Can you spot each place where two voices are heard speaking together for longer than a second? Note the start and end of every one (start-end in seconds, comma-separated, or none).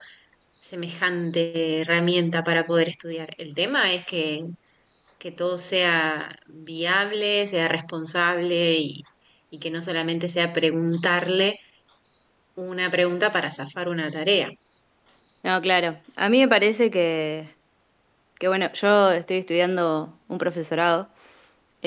none